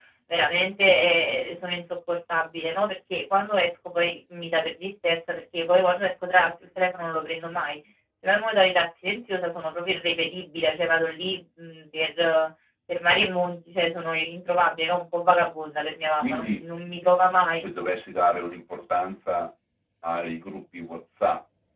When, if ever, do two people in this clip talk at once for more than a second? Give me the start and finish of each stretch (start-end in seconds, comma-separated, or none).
none